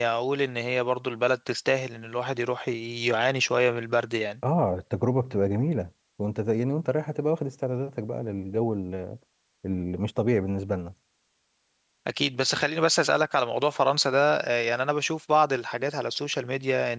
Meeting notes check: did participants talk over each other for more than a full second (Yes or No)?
No